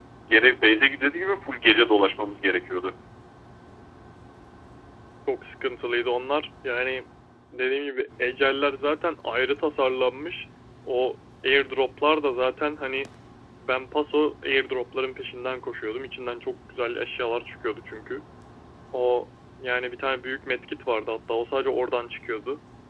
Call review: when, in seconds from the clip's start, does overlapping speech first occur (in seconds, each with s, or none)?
none